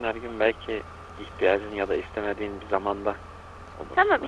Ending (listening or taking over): taking over